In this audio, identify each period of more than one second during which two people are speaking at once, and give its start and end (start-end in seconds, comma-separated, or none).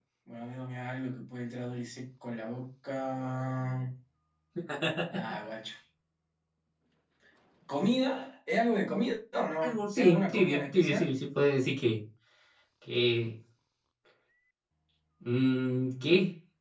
9.6-11.1